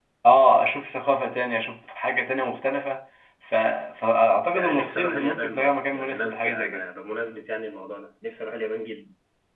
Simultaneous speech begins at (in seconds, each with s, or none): 4.5 s